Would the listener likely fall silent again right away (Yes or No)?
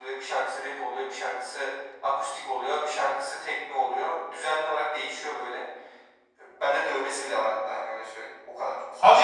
No